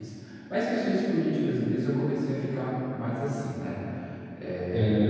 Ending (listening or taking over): taking over